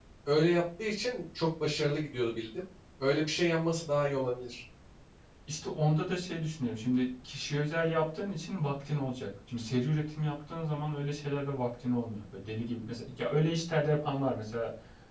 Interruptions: none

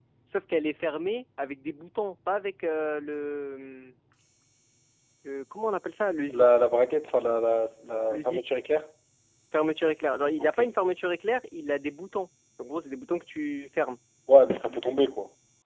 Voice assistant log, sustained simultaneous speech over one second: none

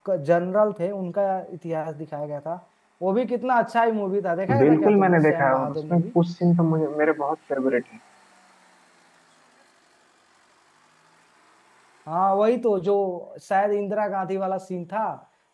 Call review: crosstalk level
present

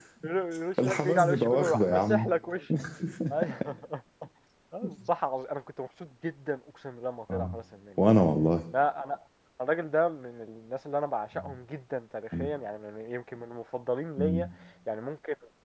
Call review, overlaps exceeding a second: present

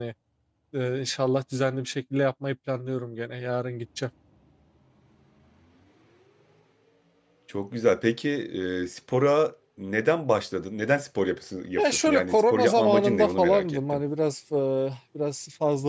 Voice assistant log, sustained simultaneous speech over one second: present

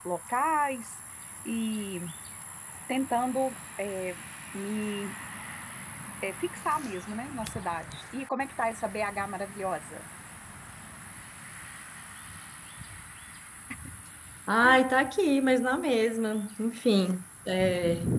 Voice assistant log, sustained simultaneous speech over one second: none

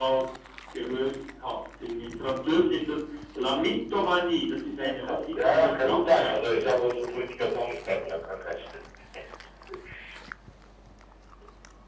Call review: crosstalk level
present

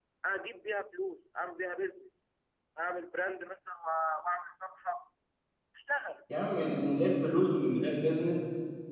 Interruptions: none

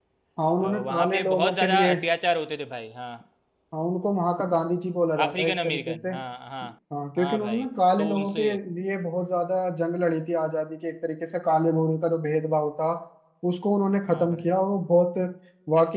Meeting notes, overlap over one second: present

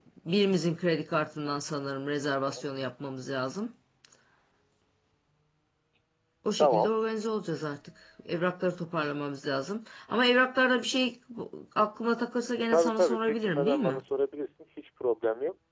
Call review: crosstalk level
present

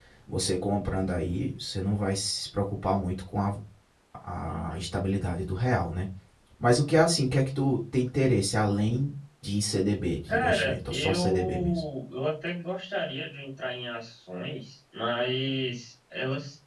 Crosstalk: present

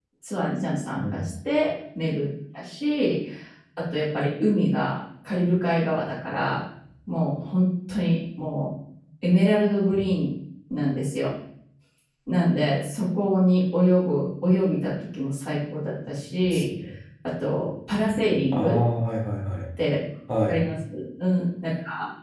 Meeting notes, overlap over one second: none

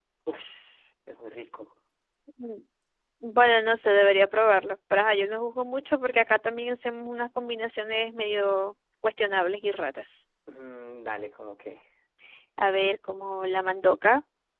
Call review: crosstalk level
none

